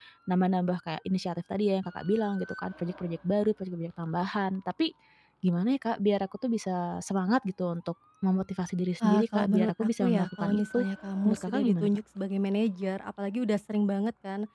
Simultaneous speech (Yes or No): Yes